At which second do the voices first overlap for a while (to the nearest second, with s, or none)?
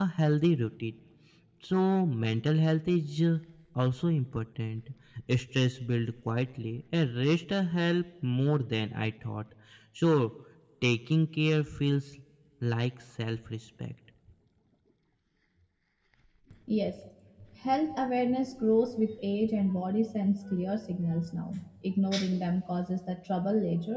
none